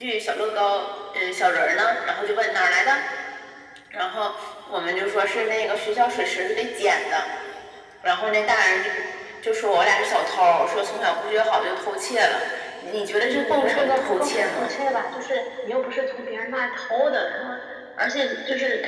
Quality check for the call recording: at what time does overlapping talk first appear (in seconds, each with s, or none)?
13.2 s